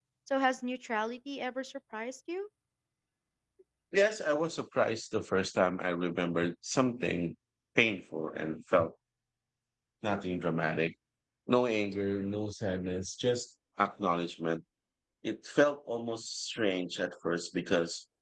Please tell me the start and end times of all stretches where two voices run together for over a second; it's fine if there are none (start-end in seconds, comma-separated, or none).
none